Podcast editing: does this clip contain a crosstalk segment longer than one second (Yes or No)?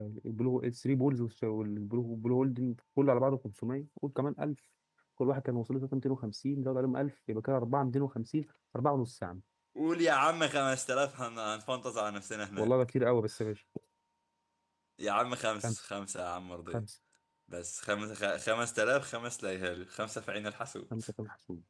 No